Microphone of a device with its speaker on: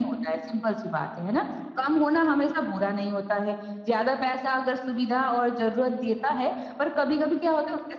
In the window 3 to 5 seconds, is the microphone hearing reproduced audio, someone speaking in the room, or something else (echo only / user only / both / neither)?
echo only